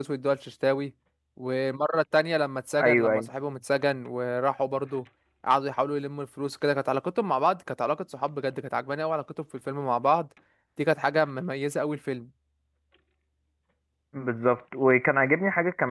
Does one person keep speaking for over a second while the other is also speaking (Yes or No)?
No